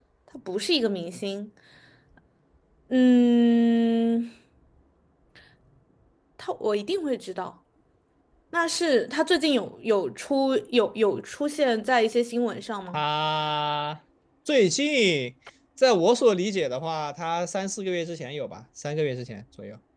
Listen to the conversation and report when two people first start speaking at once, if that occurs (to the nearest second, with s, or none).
none